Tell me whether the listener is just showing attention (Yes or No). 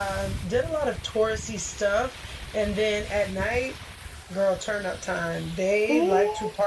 Yes